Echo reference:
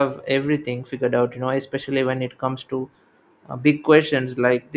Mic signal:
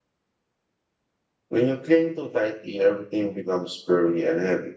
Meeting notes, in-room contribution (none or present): present